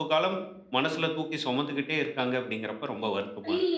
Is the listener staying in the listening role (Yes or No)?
No